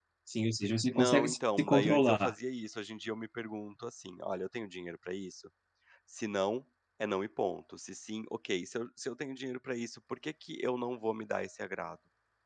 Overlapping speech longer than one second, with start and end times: 0.9-2.3

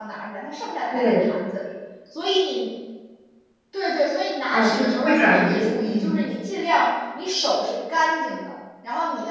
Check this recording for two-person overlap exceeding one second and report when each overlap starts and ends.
4.5-6.2

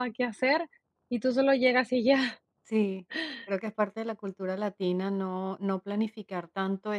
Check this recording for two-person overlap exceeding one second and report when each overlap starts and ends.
none

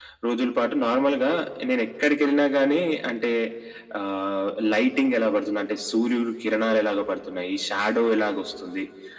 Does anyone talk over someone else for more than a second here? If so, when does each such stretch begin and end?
none

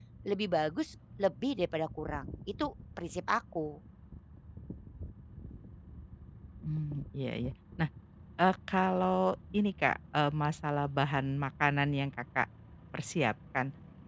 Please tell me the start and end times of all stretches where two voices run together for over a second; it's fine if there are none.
none

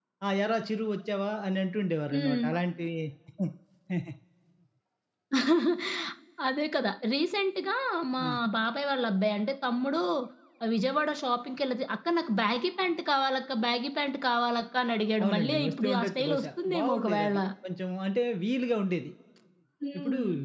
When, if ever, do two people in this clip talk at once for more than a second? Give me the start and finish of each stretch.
15.2-17.4

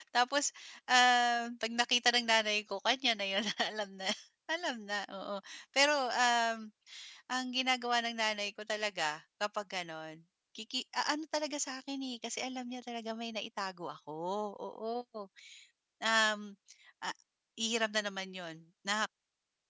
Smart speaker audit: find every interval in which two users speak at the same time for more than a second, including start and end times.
none

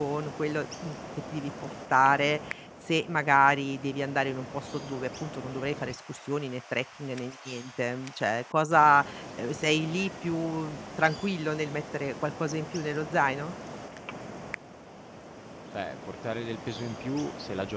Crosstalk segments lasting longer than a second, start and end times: none

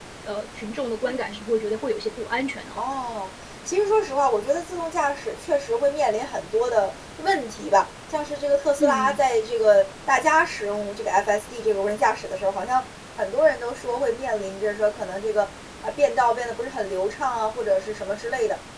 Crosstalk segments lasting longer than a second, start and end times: none

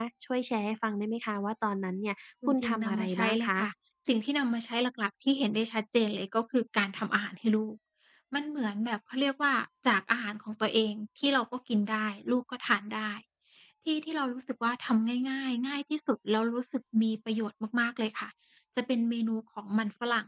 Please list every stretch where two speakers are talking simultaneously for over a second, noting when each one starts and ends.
2.5-3.7

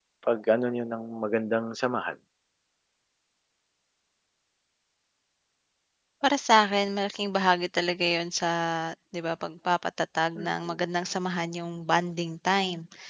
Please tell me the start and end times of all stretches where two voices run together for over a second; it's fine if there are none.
none

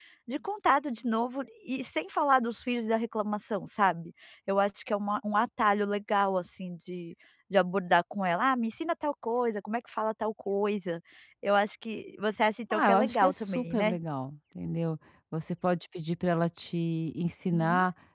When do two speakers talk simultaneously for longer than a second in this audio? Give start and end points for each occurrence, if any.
12.7-13.9

